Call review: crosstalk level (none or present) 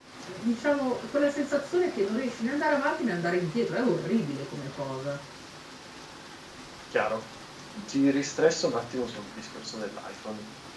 none